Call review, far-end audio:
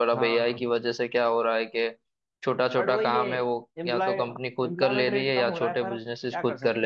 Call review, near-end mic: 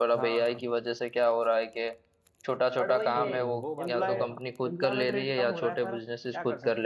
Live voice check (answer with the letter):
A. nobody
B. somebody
B